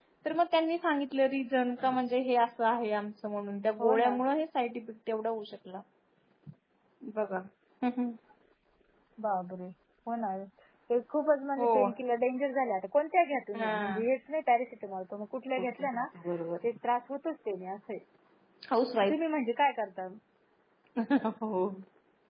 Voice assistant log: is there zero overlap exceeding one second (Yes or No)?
Yes